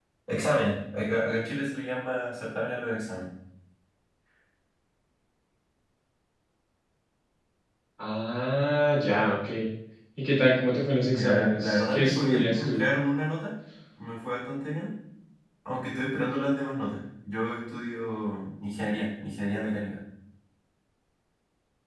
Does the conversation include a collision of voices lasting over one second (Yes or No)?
Yes